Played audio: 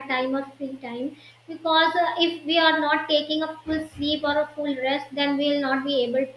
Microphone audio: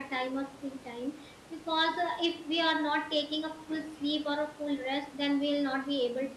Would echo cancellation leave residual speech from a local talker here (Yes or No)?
No